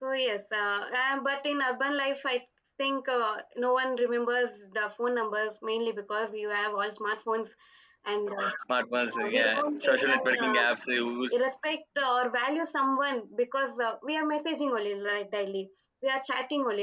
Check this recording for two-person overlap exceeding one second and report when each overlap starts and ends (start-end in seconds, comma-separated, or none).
9.3-10.5